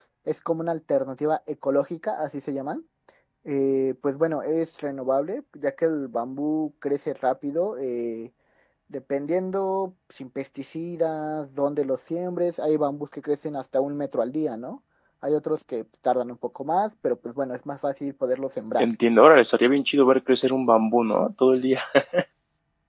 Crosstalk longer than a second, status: none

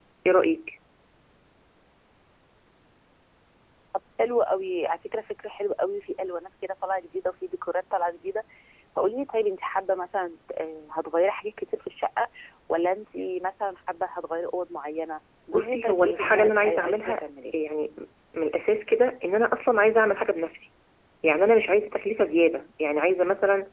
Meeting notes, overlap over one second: present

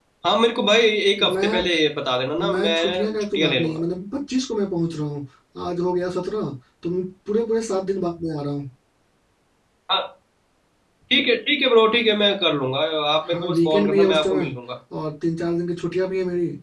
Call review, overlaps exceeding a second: present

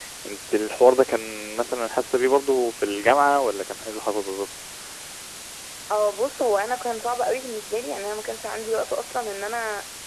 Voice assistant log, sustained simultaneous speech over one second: none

